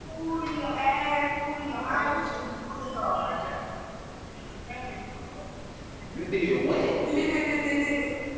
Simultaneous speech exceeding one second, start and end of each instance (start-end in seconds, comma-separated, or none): none